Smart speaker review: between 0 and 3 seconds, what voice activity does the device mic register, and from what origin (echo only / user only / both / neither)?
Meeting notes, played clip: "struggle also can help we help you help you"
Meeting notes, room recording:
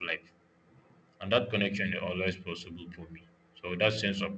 user only